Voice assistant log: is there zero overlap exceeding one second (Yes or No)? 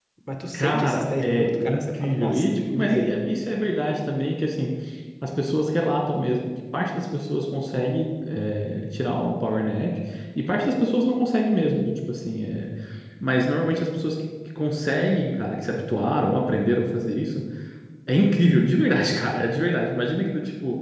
No